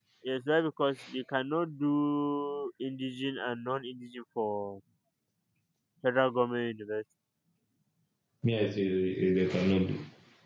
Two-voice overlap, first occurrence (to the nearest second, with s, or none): none